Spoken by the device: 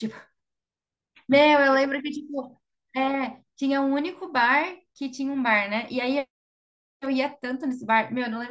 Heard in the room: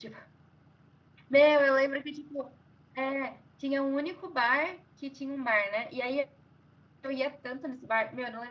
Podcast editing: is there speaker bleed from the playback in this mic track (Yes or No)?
Yes